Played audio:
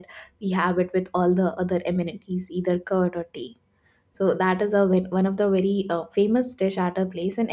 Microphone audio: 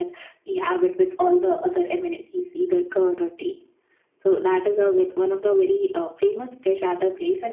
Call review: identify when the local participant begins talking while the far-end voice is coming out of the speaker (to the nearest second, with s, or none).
none